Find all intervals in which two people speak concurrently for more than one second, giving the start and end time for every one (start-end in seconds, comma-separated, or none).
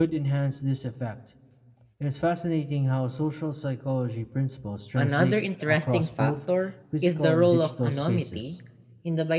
5.0-6.3, 7.0-8.4